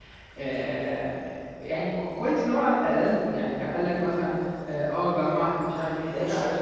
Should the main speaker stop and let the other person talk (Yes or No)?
Yes